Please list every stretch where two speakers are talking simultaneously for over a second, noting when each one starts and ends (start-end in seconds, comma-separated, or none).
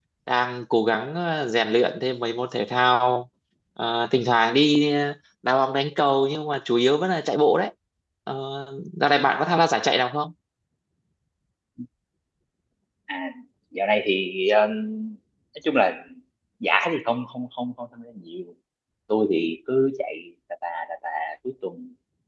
none